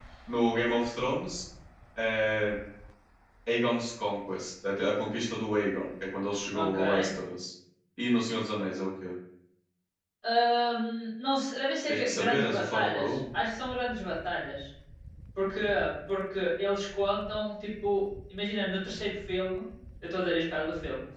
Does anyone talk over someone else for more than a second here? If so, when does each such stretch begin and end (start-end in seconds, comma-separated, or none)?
11.9-13.2